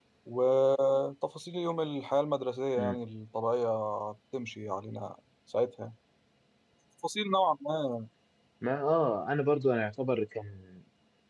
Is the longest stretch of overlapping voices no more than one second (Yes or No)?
Yes